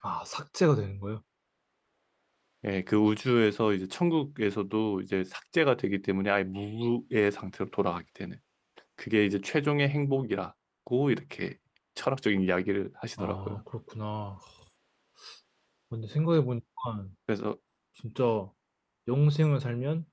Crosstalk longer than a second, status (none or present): none